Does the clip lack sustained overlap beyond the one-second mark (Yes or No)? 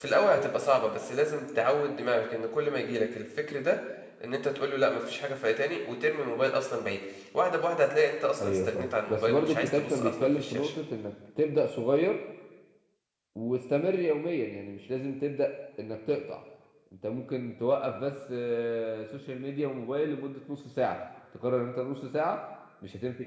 No